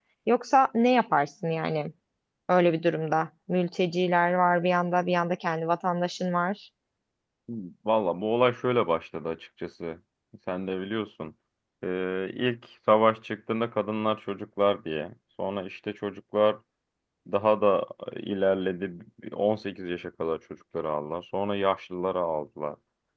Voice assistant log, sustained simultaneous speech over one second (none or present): none